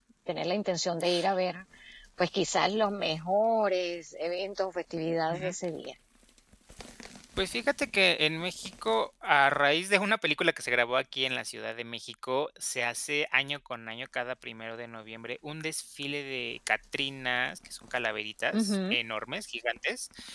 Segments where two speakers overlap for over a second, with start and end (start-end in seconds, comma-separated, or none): none